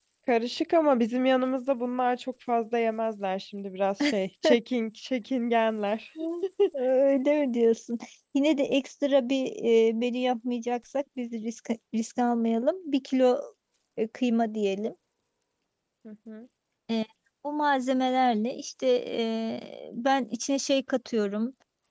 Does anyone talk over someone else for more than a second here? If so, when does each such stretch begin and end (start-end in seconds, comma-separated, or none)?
none